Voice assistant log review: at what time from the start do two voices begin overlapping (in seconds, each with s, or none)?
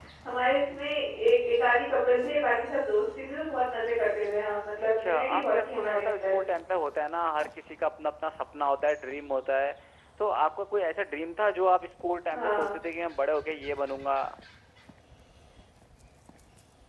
5.0 s